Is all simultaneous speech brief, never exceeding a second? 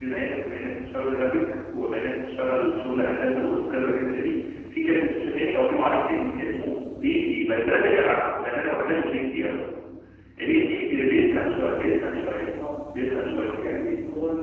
No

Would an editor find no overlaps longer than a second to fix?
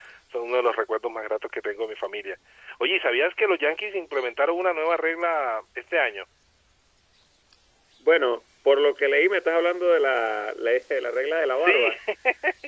Yes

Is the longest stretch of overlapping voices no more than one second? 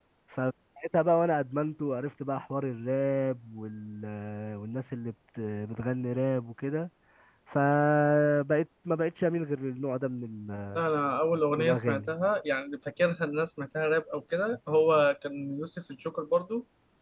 Yes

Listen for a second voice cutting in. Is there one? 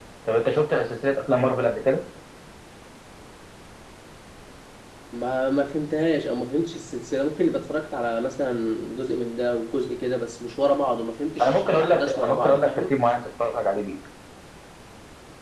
Yes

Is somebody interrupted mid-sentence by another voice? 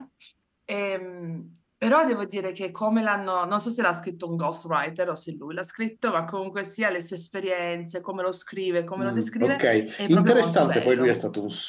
Yes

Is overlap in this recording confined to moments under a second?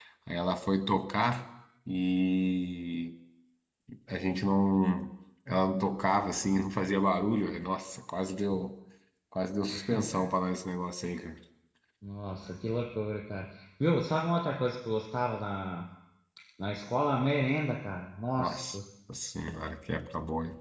Yes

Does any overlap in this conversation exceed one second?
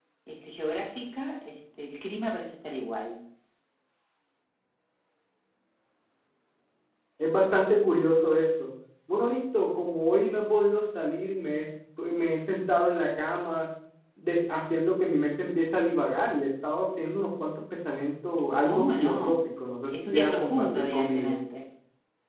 Yes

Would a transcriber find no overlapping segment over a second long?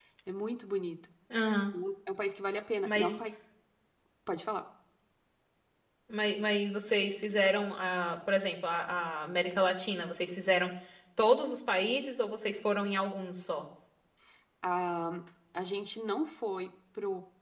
Yes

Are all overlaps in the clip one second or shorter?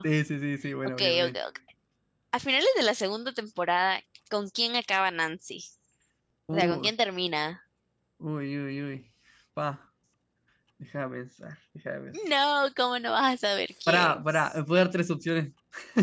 Yes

